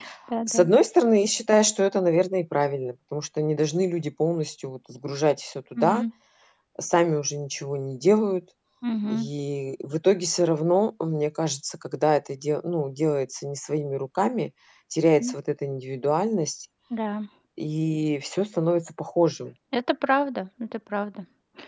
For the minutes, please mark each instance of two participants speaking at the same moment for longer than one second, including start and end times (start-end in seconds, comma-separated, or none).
none